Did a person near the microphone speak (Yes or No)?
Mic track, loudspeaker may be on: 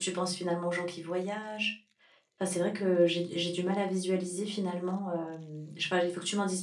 Yes